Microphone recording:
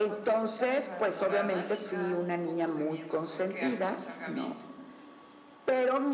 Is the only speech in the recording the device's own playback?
No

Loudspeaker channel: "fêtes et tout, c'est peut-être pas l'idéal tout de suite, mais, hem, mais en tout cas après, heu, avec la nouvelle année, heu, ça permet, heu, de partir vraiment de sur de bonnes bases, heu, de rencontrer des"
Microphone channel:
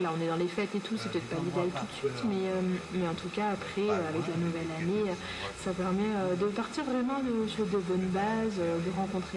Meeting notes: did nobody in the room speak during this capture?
No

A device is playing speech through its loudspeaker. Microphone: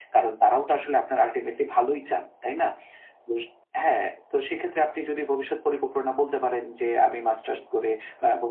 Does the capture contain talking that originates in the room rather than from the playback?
No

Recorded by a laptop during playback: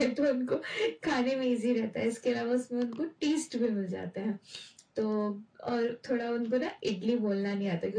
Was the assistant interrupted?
No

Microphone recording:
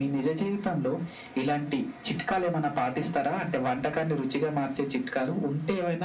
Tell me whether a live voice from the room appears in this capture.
No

